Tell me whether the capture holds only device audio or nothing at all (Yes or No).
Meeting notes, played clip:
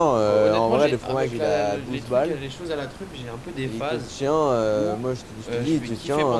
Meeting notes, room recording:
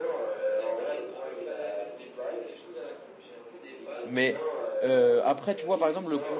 No